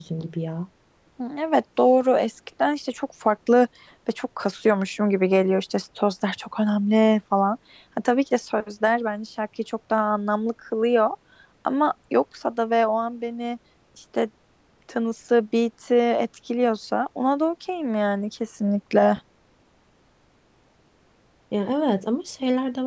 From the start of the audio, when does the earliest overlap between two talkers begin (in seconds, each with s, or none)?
none